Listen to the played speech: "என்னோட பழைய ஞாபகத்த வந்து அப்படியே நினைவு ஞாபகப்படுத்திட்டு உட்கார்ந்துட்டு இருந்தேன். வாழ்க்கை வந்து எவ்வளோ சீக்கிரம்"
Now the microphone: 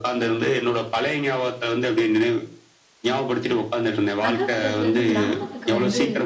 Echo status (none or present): present